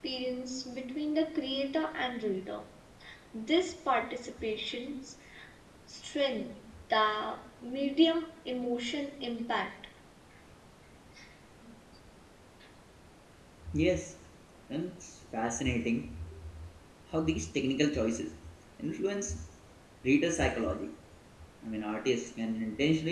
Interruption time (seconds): none

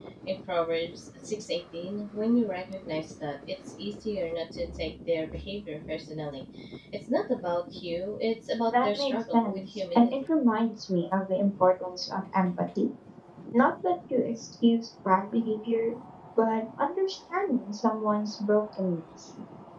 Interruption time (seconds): 8.7 s

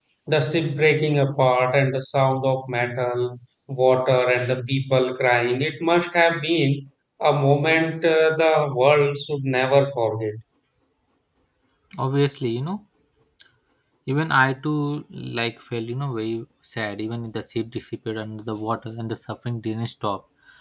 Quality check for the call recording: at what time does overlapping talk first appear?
none

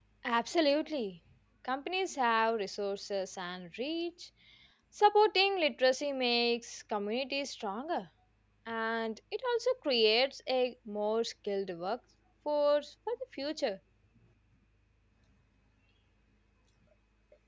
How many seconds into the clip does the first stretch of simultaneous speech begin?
none

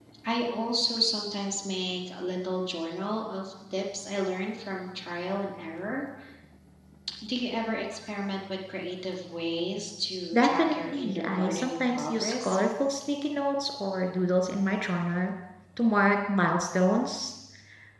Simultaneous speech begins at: 10.3 s

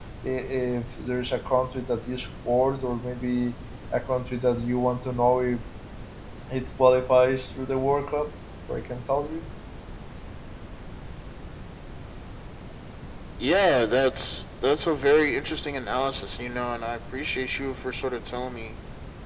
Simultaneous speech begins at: none

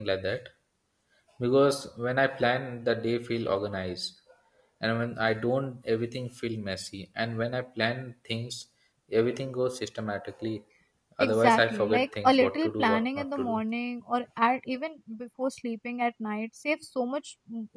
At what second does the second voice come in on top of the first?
11.2 s

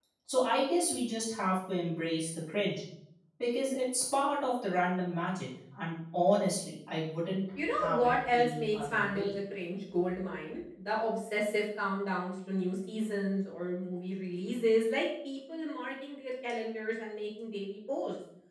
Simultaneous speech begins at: 7.6 s

